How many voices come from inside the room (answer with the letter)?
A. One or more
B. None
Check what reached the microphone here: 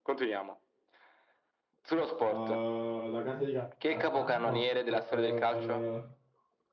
A